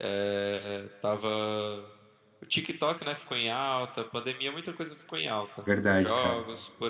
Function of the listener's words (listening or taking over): listening